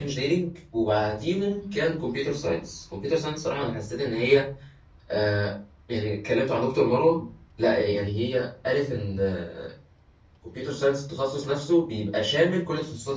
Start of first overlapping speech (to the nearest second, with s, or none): none